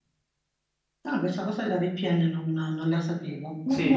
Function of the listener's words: taking over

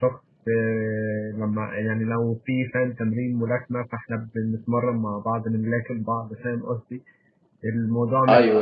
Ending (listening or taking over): listening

